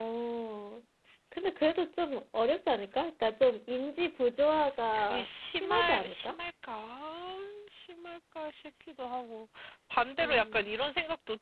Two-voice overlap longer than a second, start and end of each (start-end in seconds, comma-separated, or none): 4.9-6.3